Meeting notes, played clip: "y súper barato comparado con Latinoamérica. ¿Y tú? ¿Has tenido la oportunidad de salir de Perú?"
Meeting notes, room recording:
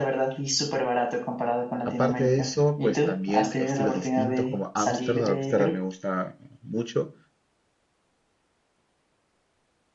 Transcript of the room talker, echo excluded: Aparte de eso, pues también estilos distintos como Ámsterdam. Ámsterdam me gusta mucho.

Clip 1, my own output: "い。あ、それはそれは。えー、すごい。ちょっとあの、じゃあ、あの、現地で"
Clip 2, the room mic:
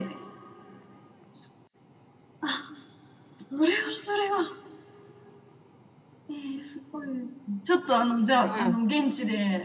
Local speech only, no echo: うん、

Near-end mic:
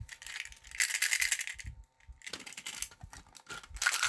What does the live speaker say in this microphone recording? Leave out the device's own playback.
none

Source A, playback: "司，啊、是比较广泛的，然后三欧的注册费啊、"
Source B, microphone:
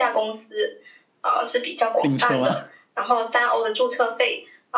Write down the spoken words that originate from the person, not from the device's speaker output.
自行车吗

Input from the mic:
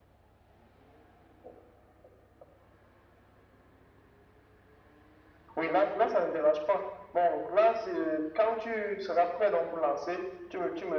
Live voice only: none

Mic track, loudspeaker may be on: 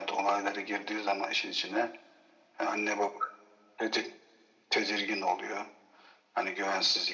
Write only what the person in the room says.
none

